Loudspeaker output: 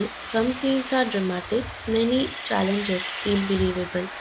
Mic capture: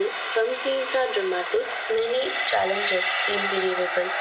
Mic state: echo only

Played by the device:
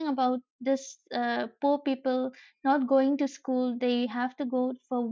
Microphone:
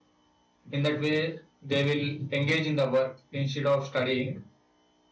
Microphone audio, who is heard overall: user only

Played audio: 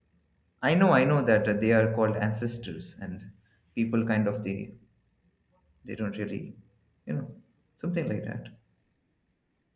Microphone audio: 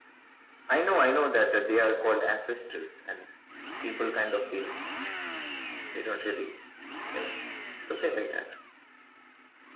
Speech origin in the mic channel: echo only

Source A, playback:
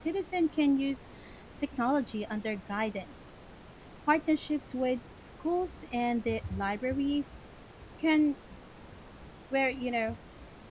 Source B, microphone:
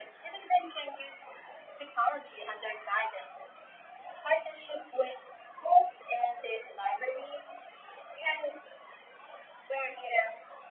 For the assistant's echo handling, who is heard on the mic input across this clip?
echo only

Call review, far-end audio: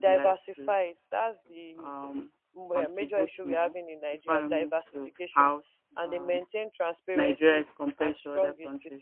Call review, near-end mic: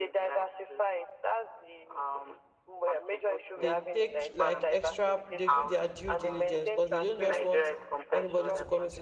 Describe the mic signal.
both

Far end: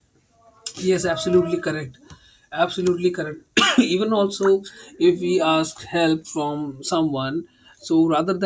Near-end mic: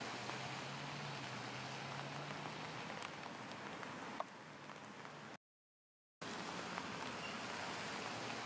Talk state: neither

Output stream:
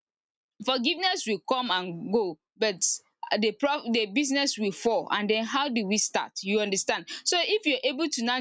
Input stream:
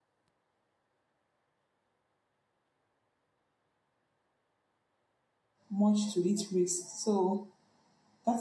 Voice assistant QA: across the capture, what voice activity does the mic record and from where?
user only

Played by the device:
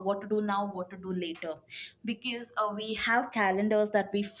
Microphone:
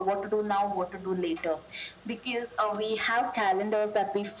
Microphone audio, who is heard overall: echo only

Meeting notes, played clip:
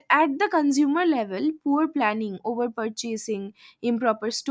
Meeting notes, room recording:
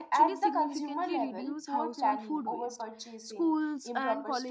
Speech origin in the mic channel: both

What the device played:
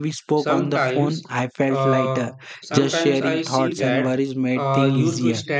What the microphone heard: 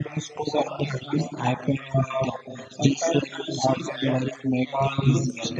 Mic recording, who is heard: echo only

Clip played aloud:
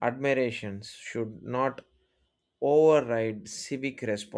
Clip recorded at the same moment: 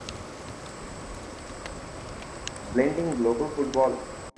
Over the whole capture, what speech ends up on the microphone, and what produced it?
user only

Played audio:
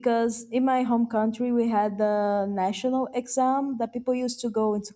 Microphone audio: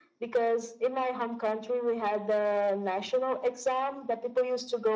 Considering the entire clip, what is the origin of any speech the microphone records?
echo only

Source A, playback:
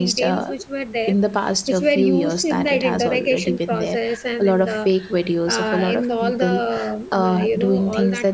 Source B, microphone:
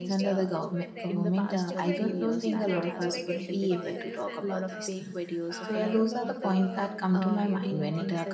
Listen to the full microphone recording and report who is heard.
both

